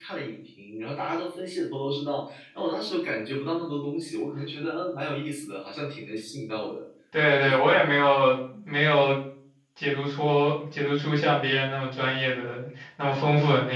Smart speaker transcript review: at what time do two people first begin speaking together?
none

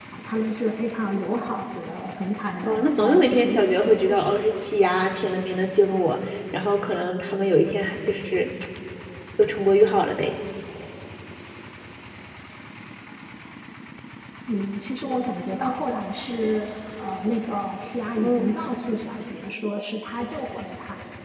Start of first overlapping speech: 2.6 s

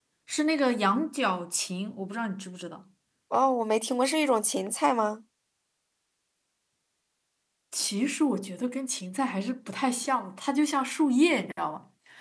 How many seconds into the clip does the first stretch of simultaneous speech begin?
none

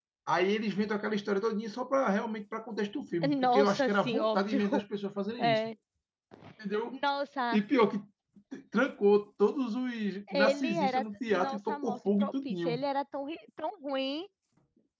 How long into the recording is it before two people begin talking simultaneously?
3.4 s

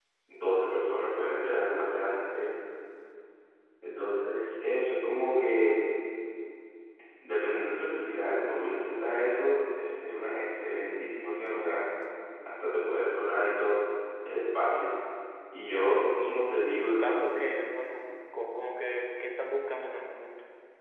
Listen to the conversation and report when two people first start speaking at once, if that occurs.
15.7 s

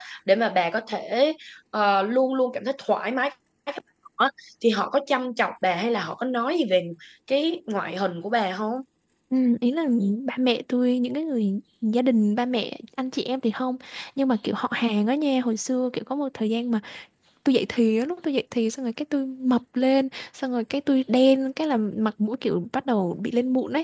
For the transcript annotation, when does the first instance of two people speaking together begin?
none

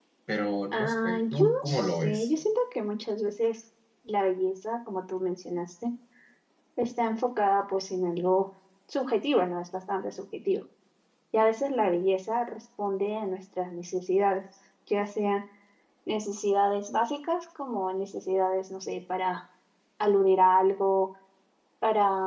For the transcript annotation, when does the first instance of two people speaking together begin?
0.7 s

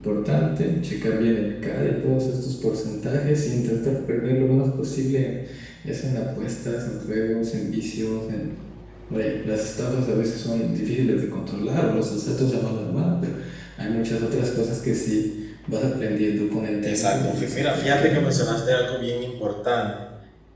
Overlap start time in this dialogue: 16.8 s

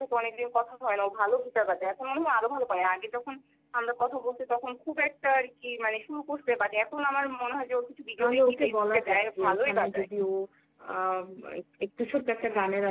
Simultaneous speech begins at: 8.2 s

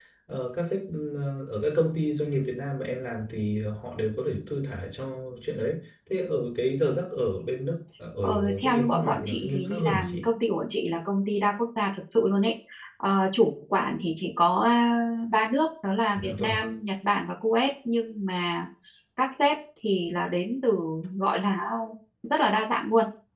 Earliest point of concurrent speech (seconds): 8.2 s

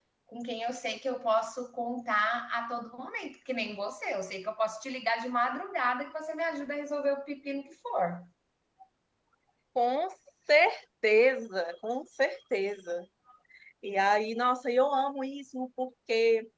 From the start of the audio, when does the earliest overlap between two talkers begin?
none

